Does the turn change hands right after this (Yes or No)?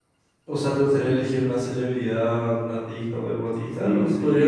Yes